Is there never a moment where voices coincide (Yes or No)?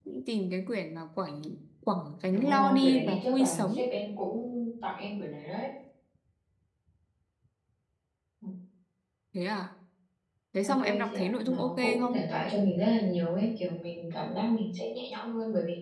No